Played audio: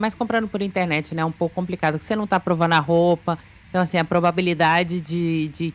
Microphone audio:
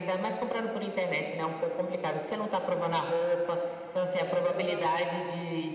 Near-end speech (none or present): present